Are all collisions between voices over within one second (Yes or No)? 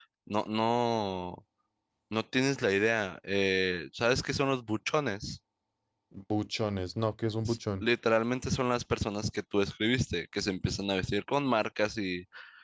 Yes